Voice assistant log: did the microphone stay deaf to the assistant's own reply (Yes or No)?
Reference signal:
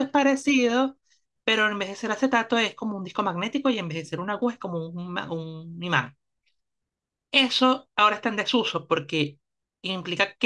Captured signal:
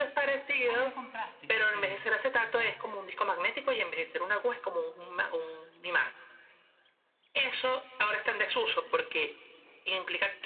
No